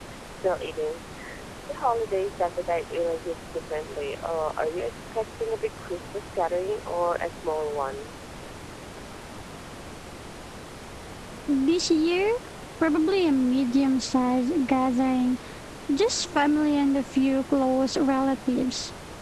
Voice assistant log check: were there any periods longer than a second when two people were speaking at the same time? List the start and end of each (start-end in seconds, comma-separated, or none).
none